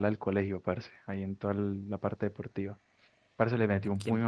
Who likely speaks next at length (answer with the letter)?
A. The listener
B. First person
B